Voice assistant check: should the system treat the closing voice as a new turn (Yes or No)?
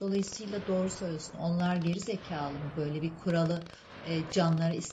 No